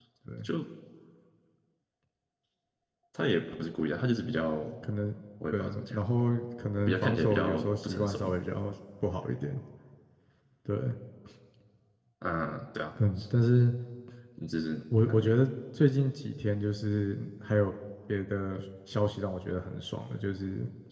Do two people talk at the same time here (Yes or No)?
Yes